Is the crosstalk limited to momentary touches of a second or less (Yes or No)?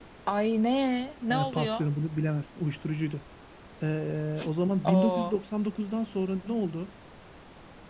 Yes